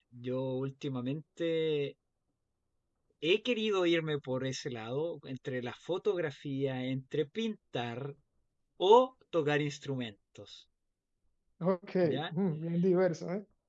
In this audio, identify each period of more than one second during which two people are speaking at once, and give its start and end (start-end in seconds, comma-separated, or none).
none